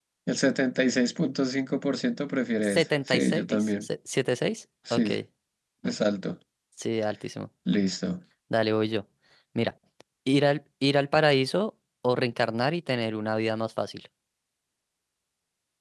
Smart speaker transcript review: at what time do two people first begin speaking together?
3 s

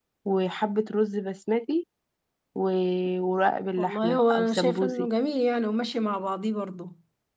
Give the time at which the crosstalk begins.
4 s

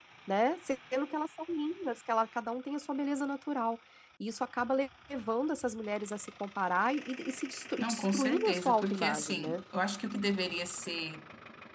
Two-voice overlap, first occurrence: 8 s

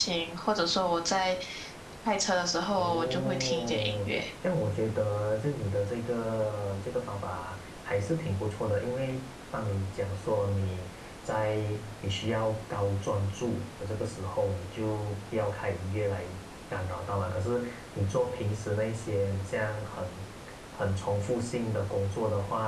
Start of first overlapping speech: 3 s

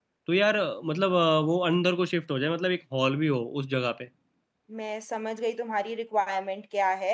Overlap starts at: none

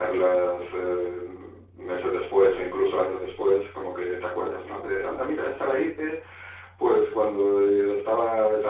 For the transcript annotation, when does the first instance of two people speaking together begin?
none

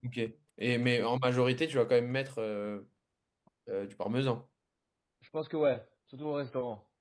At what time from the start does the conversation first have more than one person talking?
none

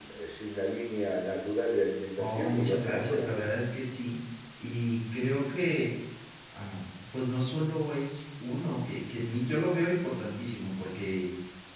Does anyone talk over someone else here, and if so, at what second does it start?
2 s

